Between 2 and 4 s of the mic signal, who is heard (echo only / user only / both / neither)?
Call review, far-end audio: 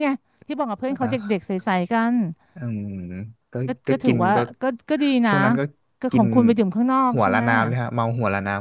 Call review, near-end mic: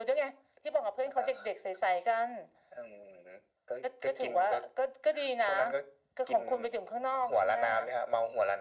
echo only